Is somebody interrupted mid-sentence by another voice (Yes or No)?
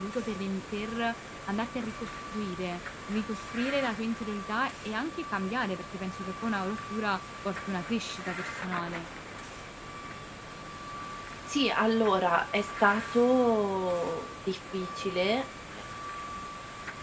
No